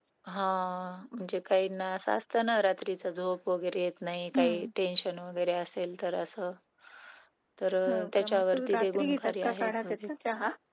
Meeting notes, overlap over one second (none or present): present